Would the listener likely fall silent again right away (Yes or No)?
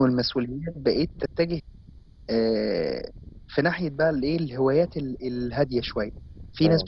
Yes